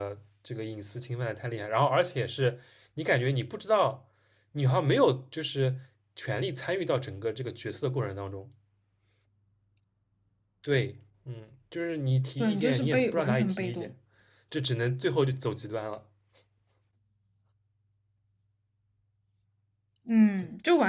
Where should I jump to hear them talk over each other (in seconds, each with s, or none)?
12.4 s